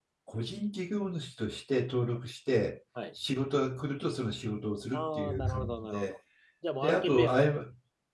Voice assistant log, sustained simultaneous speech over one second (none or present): present